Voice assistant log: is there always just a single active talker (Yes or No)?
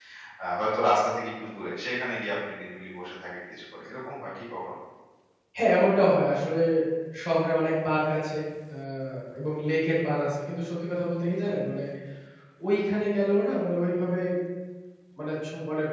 Yes